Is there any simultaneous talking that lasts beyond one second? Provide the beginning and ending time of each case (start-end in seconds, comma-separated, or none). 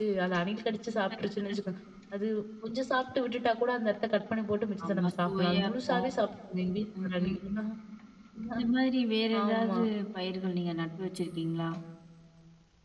4.8-6.1